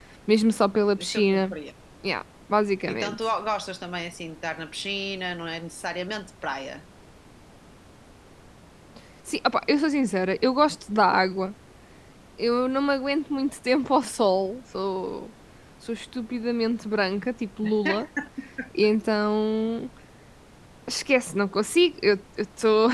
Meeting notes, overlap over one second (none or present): none